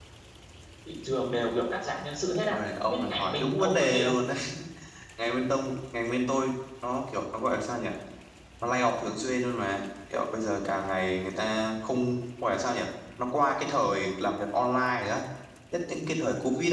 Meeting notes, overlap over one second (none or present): present